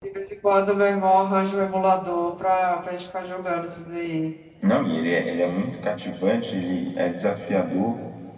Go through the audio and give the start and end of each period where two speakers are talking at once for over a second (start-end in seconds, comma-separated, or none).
none